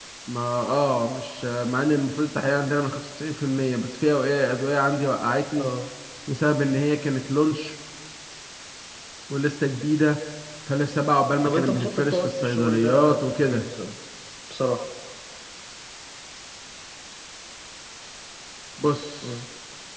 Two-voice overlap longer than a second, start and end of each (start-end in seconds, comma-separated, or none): 11.4-13.6